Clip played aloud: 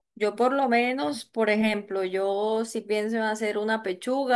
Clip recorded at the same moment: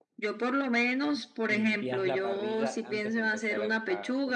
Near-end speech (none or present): present